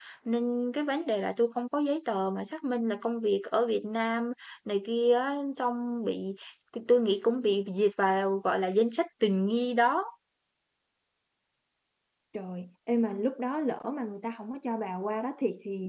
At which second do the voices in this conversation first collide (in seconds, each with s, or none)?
none